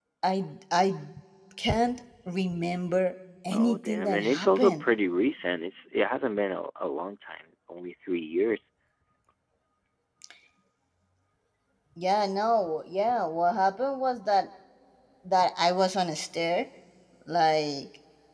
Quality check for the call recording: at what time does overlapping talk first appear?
4 s

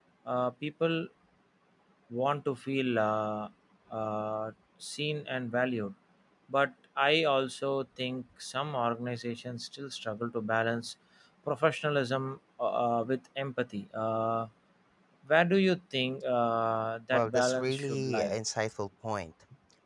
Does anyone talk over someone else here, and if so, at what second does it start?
17 s

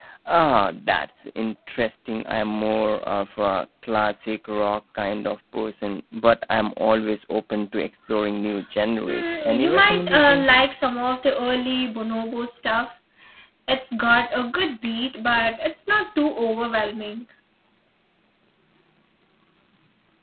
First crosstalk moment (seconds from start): 9 s

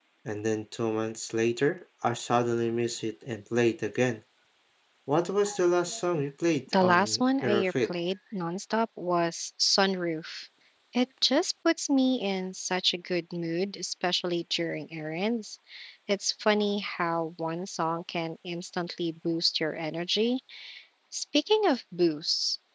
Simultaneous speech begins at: 7 s

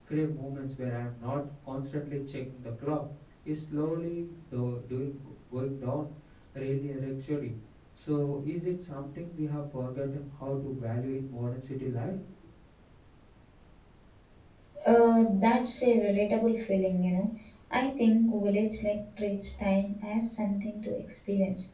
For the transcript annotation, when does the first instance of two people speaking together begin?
none

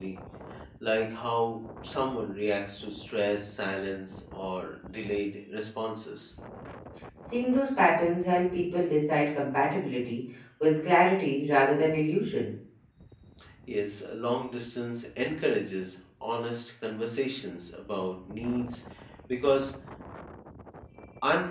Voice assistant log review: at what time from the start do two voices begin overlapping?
none

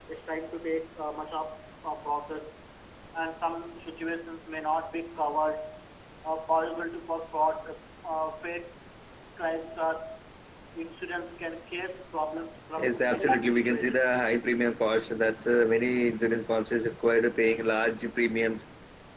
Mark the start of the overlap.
13 s

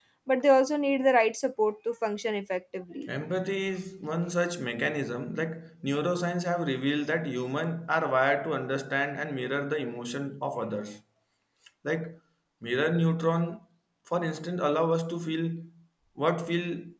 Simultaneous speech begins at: none

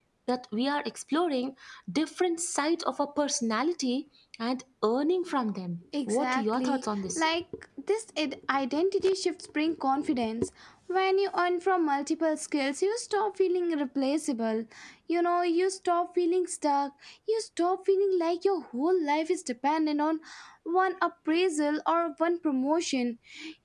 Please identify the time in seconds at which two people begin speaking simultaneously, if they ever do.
6 s

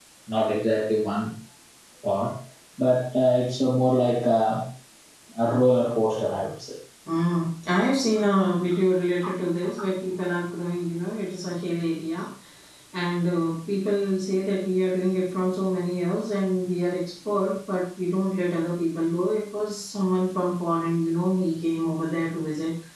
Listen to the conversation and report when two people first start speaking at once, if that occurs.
none

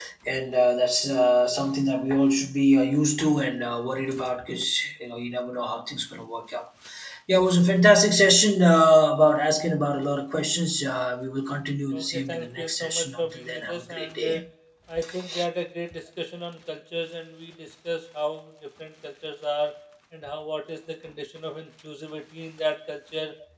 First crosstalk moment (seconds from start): 12 s

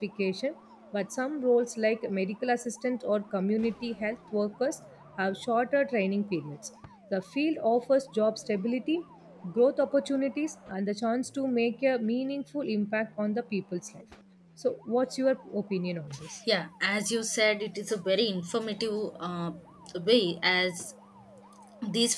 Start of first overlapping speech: none

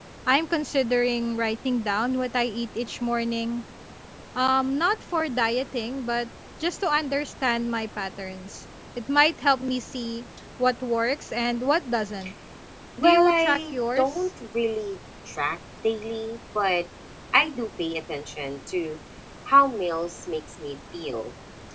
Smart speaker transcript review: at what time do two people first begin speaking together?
13 s

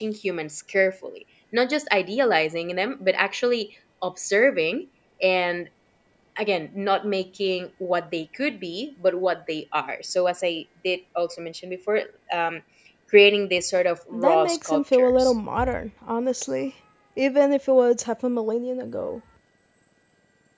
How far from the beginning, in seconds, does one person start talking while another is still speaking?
14 s

